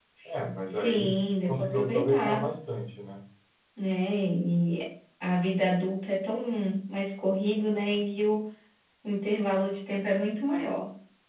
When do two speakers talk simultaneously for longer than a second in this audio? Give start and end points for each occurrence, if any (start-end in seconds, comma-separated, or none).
0.7-2.5